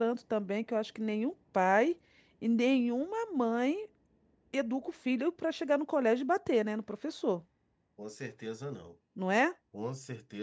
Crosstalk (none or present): none